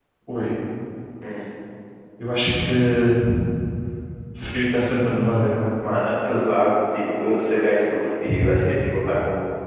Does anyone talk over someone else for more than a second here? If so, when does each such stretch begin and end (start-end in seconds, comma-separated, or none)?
none